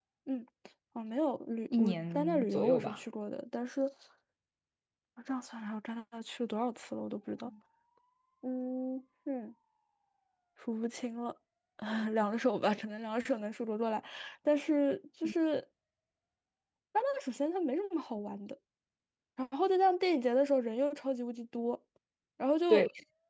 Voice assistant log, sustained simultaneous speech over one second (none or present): present